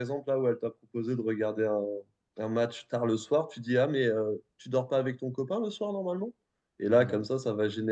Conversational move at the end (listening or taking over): listening